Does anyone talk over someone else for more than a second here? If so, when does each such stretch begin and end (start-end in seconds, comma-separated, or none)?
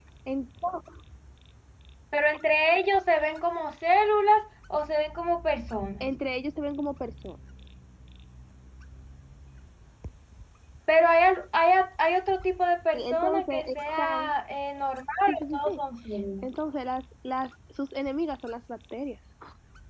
12.9-14.3